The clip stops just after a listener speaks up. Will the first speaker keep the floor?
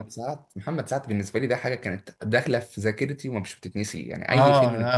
No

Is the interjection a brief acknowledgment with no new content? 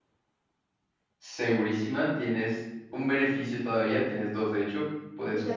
No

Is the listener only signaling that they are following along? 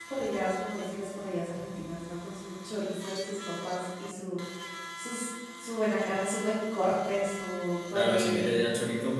No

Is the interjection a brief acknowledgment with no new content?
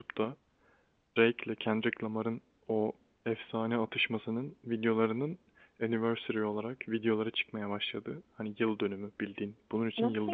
No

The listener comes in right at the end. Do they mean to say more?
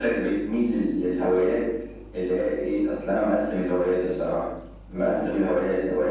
No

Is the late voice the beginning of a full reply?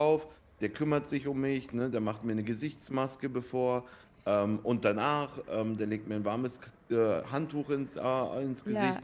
No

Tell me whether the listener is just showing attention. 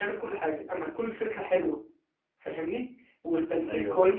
Yes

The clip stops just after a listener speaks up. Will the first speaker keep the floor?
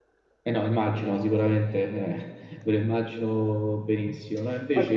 Yes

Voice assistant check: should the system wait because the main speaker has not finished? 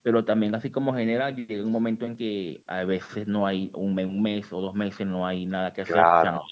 No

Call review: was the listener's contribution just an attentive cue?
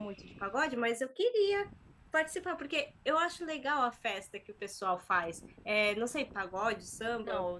No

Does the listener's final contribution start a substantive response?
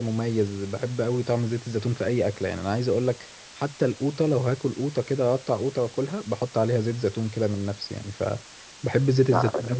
No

